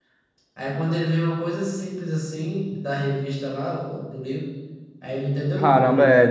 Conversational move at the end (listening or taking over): taking over